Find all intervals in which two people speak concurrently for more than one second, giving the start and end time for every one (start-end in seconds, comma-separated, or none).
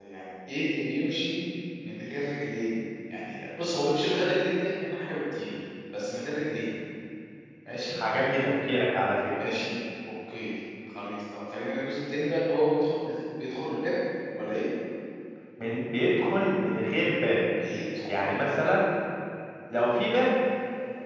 none